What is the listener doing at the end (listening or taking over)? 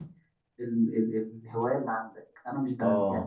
listening